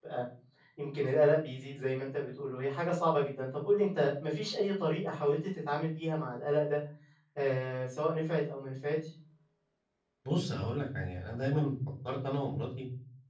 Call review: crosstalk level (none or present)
none